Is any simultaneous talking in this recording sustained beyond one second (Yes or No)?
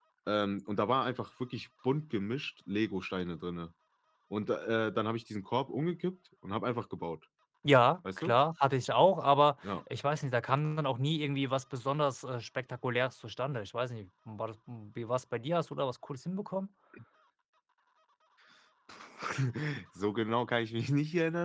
No